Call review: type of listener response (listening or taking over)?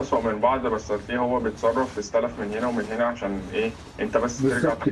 taking over